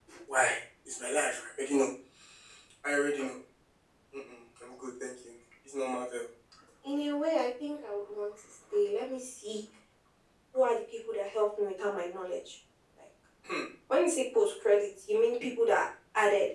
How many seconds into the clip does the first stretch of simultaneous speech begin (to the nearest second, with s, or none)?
none